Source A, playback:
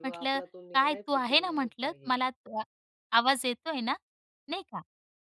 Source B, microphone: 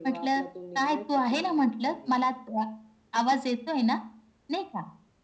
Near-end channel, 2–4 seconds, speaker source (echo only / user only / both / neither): echo only